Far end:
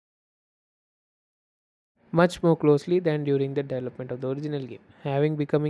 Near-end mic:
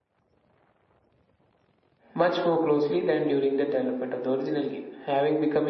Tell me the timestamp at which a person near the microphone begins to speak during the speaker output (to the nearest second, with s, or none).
none